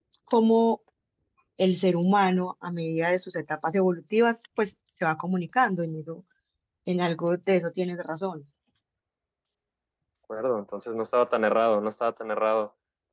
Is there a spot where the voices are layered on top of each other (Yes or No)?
No